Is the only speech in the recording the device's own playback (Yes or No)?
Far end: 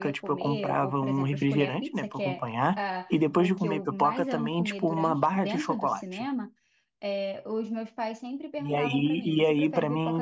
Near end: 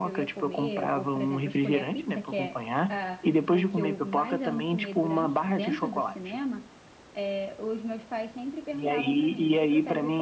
Yes